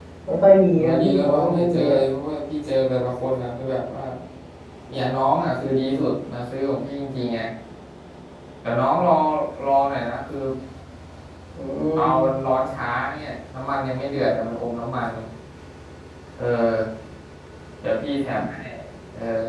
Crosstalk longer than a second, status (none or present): present